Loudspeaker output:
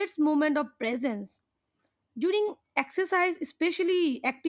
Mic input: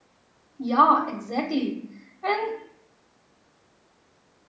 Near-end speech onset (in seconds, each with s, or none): 0.6 s